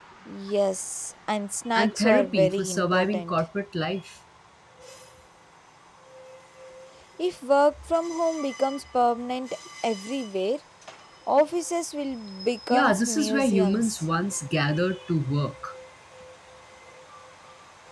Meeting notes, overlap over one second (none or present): present